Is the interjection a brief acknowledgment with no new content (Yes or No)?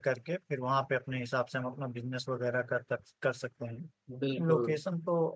Yes